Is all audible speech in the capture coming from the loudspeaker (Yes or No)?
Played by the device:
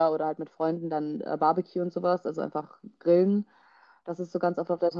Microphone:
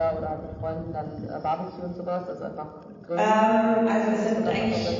No